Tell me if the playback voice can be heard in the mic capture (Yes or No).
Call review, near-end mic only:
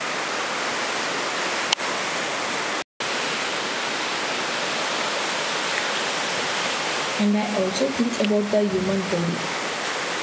No